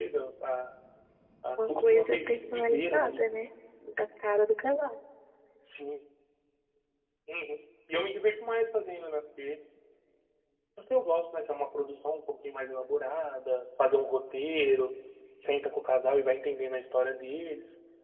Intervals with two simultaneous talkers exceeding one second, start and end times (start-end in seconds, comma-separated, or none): 1.6-3.2